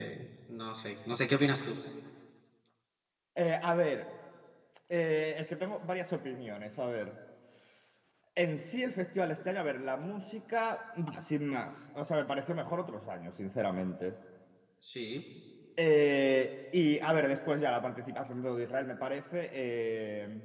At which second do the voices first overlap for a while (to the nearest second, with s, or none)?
none